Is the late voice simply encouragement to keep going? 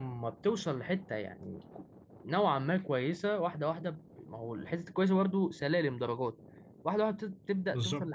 Yes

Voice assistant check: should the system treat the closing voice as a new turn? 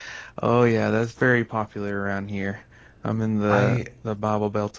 No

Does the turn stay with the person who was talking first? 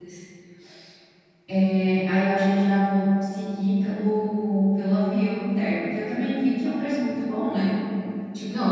No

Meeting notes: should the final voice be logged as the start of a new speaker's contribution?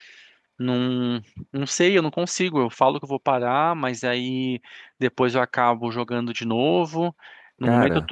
No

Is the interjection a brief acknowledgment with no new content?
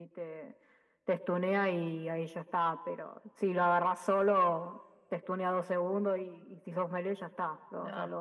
No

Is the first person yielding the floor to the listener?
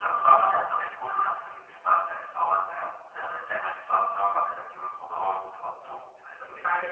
Yes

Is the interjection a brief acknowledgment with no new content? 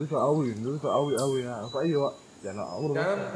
Yes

